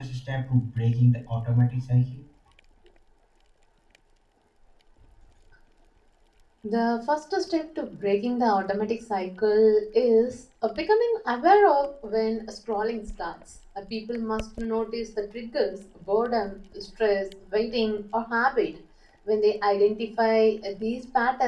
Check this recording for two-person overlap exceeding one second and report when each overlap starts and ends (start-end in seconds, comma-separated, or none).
none